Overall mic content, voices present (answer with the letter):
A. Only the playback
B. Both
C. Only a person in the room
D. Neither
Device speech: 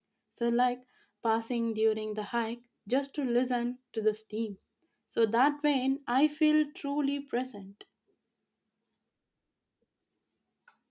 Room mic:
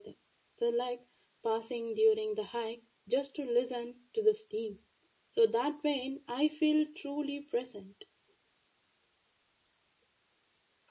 A